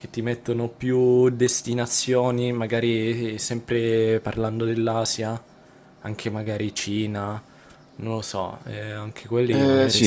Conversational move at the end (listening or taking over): taking over